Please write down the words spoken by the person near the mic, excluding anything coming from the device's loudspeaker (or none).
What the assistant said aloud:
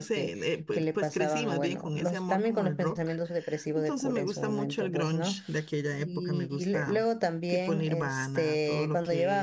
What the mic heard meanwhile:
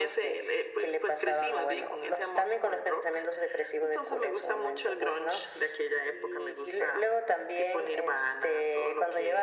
none